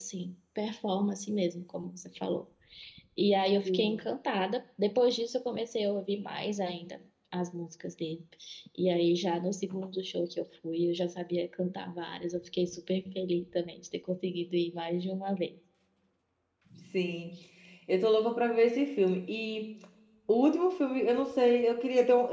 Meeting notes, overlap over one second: none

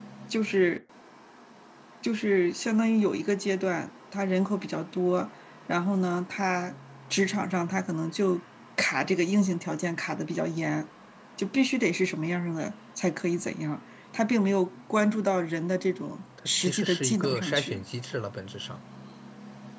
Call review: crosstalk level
present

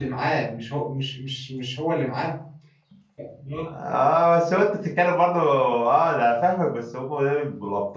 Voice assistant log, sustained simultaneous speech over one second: none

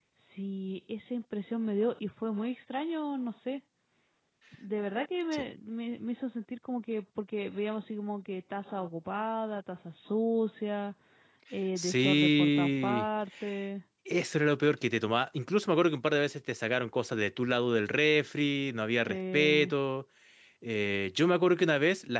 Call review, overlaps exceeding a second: present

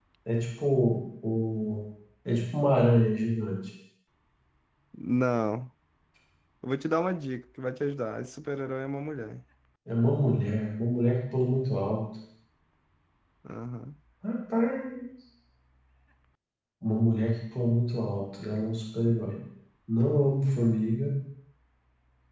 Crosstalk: none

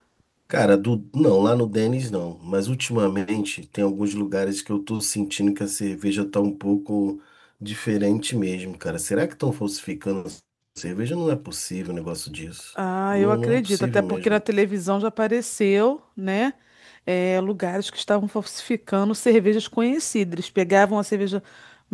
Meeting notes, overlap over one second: present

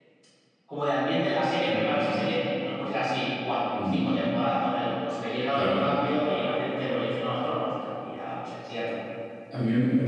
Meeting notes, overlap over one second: none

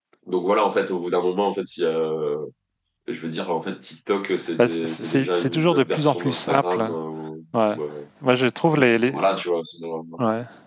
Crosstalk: present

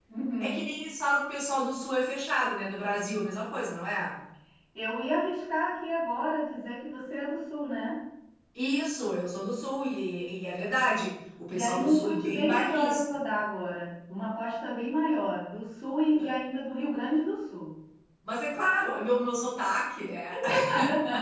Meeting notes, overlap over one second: present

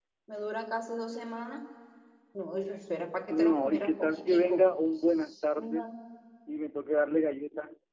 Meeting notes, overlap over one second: present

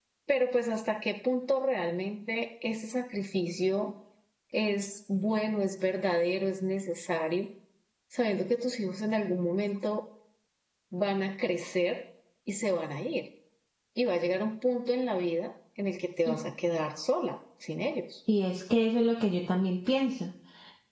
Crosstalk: none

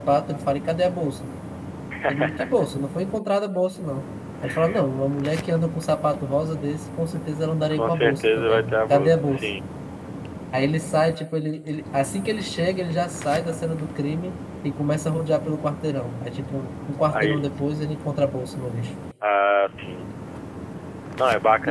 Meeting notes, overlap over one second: present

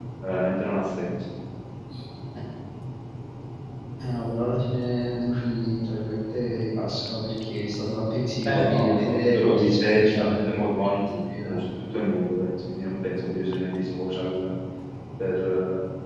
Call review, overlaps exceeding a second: present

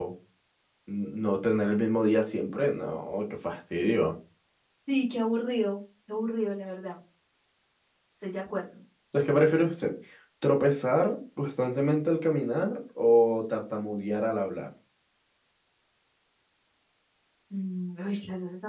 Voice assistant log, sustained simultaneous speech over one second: none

